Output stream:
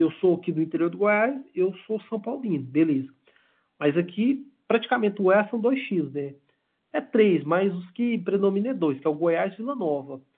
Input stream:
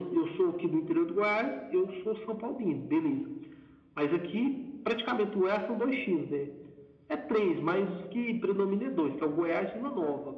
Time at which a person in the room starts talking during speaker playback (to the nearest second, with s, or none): none